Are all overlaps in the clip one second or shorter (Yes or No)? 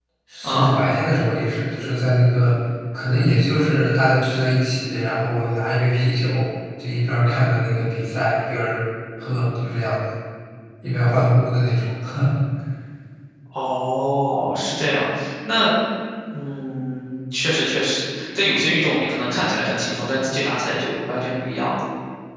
Yes